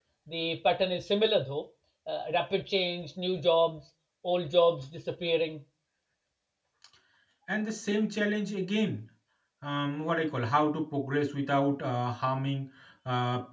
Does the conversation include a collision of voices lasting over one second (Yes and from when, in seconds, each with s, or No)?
No